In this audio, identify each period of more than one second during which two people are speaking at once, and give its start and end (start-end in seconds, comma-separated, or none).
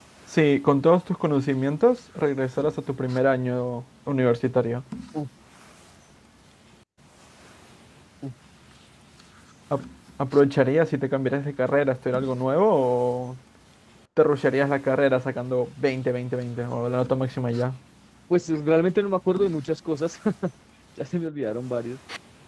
none